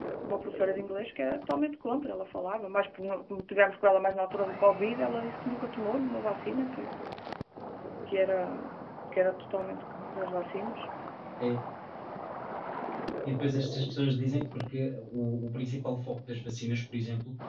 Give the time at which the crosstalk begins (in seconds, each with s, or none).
none